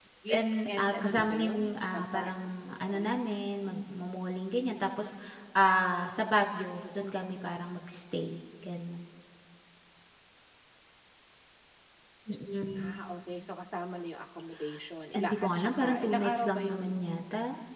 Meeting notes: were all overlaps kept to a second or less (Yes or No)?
No